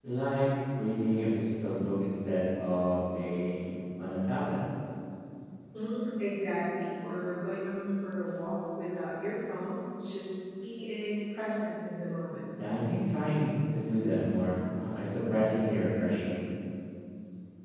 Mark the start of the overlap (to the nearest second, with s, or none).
none